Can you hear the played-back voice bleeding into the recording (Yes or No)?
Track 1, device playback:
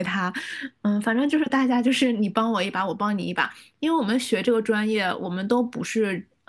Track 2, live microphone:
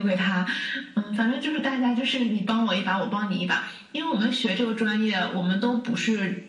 Yes